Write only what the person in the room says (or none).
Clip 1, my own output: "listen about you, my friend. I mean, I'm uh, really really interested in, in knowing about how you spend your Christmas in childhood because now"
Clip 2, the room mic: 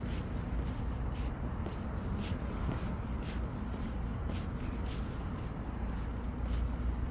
none